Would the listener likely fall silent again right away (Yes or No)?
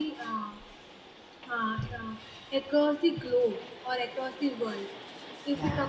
Yes